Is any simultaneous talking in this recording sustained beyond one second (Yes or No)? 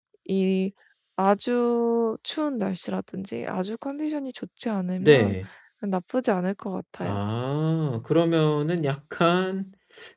No